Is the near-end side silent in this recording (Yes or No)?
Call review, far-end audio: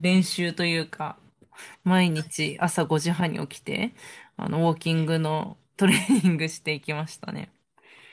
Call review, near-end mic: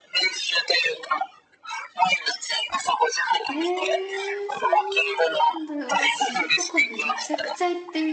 No